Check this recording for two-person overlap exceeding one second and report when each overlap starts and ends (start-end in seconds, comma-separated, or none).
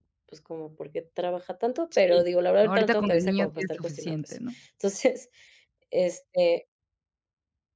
2.6-4.3